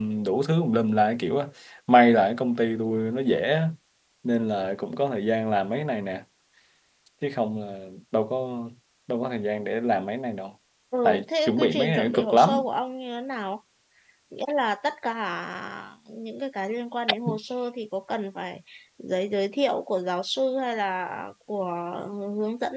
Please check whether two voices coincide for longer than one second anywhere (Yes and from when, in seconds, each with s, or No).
Yes, from 11.0 s